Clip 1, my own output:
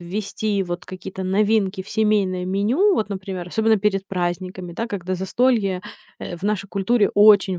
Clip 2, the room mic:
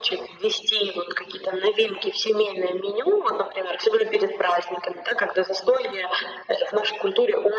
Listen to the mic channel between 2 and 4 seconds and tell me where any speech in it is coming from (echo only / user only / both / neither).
echo only